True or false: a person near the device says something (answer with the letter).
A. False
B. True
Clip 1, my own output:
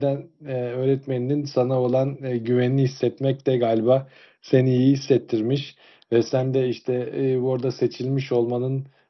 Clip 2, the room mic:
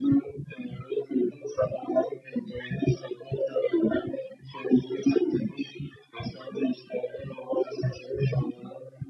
A